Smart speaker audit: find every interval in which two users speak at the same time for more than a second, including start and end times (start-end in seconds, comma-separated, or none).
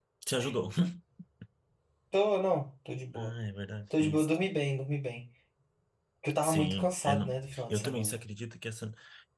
6.4-8.2